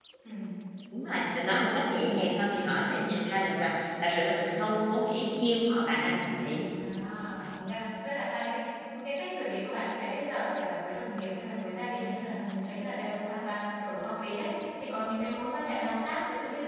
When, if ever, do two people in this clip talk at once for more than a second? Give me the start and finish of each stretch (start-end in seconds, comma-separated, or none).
none